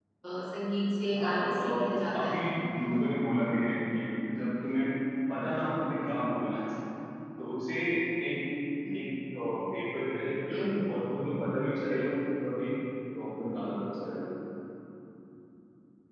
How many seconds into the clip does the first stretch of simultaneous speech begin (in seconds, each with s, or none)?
1.1 s